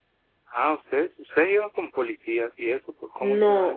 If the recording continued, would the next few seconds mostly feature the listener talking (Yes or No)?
Yes